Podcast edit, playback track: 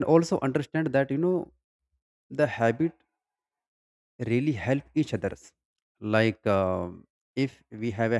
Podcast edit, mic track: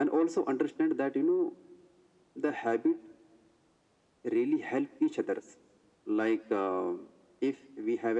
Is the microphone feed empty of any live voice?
Yes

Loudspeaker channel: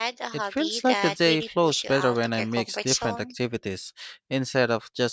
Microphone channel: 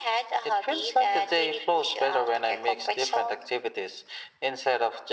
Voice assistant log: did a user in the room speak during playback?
No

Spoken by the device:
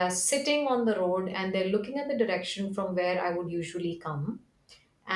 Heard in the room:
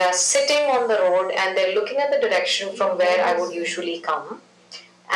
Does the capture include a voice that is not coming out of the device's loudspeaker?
Yes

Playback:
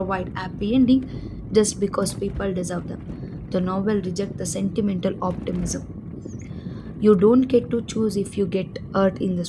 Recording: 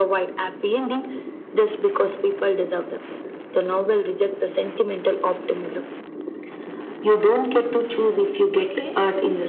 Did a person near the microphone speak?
Yes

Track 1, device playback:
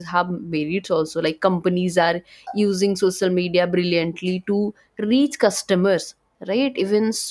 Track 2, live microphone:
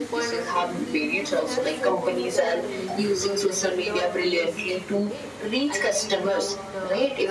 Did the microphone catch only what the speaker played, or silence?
No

